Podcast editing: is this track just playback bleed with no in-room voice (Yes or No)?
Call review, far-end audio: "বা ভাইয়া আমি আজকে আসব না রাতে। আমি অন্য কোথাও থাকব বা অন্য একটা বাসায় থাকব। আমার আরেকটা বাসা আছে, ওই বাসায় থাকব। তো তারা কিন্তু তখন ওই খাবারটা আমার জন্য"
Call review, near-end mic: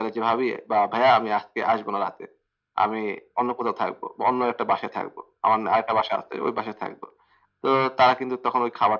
Yes